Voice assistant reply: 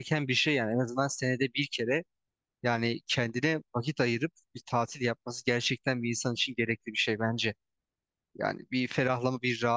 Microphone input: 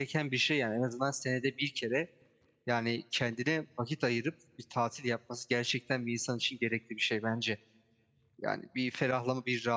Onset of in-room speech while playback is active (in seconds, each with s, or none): none